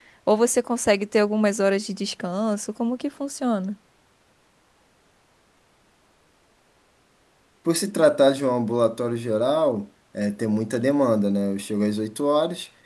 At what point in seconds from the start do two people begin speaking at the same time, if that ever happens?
none

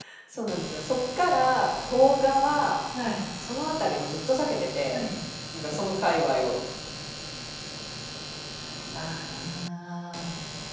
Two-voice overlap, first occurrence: none

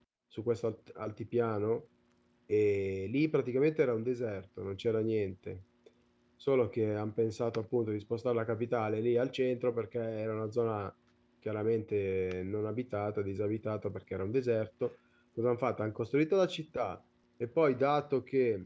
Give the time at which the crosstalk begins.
none

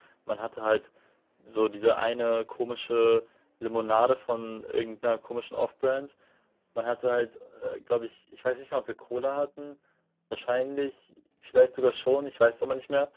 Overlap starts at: none

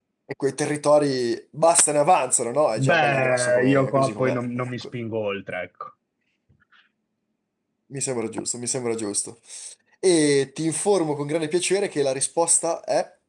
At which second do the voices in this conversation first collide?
3 s

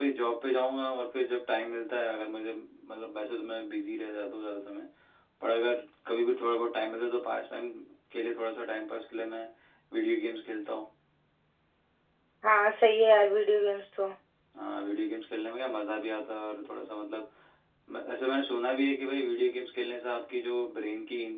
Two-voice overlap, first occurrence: none

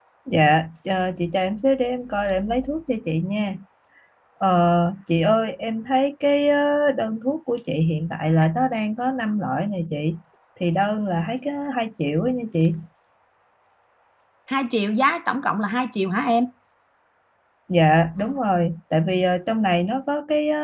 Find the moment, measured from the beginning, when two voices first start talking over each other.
none

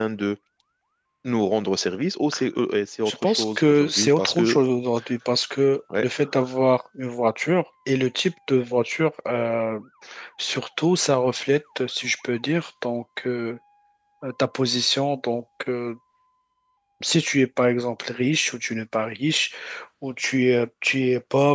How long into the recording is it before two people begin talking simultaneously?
3 s

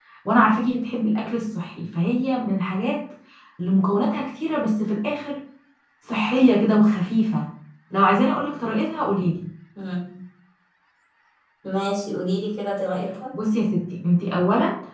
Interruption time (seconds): none

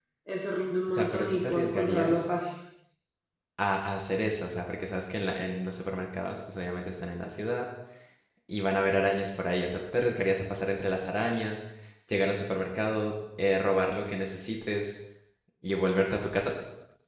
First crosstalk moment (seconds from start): 1 s

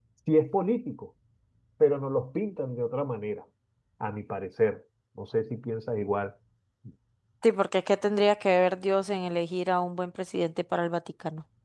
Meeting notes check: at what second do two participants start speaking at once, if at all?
none

